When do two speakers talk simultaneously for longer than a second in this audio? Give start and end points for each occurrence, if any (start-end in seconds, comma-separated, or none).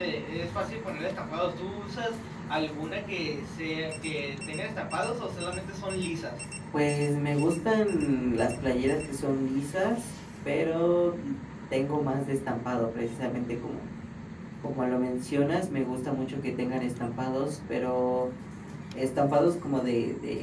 none